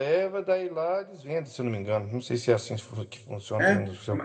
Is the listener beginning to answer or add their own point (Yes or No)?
Yes